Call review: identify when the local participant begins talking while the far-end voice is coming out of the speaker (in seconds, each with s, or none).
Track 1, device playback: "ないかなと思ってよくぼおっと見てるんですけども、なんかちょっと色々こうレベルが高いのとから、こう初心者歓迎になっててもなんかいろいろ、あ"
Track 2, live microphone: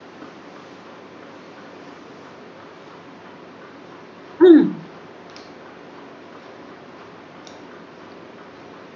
4.4 s